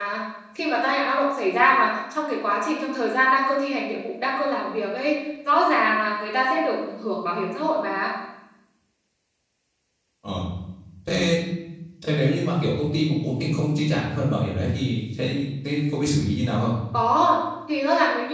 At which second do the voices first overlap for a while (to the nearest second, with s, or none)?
none